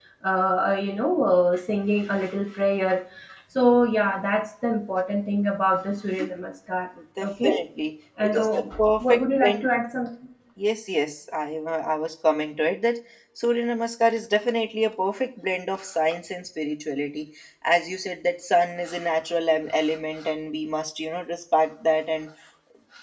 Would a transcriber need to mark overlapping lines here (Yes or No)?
Yes